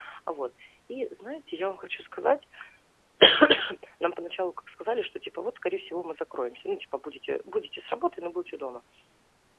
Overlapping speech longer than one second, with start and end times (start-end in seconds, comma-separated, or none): none